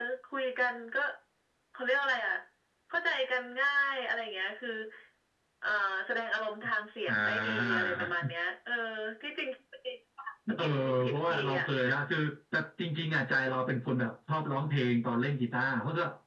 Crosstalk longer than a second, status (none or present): present